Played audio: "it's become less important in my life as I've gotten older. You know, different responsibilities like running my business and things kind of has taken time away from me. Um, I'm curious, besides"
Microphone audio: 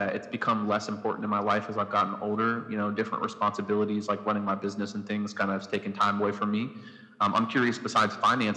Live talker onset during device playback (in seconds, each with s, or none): none